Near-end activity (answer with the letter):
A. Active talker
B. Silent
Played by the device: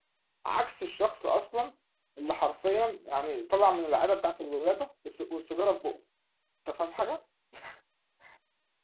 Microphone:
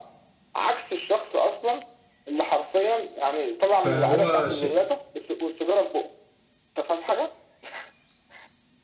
A